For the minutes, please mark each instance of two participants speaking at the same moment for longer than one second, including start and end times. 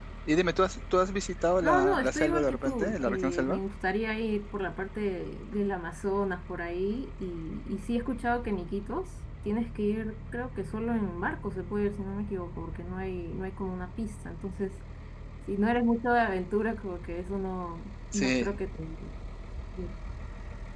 1.6-3.6

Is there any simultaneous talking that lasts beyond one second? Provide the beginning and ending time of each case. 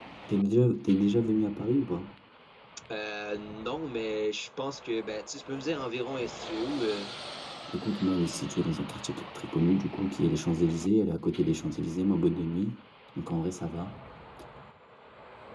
none

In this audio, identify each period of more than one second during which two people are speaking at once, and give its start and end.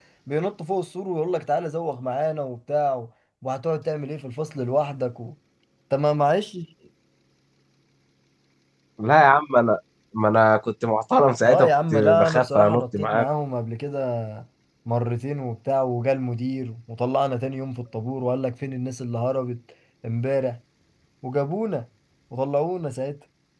11.4-13.3

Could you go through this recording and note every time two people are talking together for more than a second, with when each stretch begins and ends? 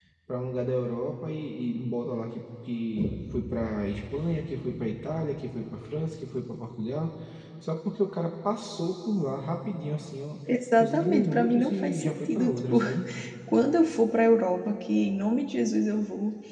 10.8-12.8

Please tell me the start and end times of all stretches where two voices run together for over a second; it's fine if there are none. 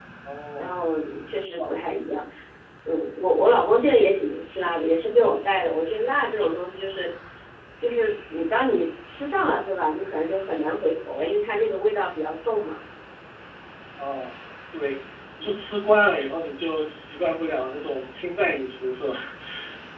none

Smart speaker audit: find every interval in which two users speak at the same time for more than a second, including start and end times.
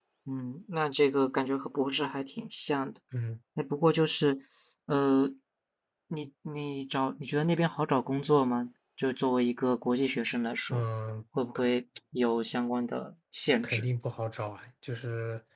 none

